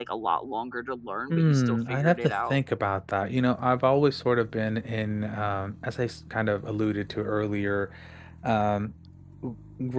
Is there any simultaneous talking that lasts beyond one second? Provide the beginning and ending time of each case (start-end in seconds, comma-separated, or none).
1.3-2.6